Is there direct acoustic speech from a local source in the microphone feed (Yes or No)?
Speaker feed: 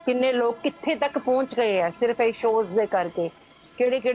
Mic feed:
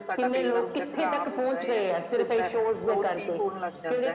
Yes